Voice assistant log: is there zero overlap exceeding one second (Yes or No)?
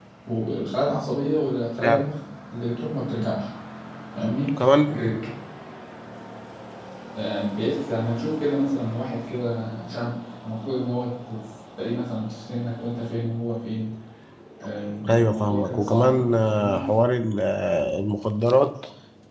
No